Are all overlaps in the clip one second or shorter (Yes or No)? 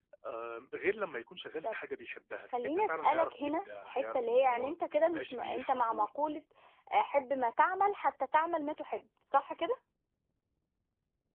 No